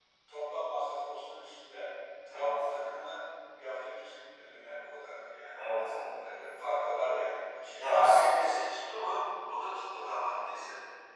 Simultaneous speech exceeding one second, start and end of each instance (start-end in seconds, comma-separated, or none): none